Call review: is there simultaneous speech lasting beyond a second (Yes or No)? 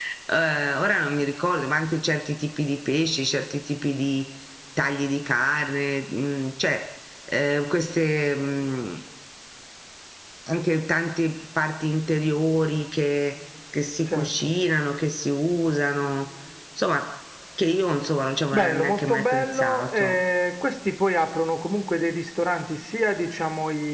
Yes